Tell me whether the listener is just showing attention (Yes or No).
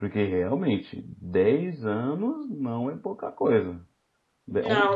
No